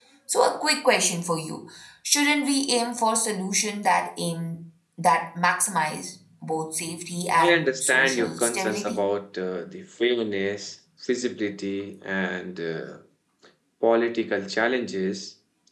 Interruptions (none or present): present